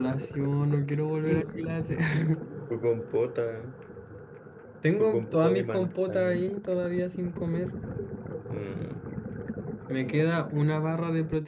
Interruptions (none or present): present